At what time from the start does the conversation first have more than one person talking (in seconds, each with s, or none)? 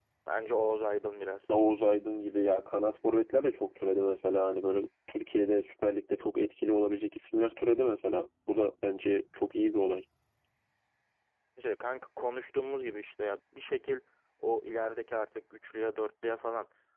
none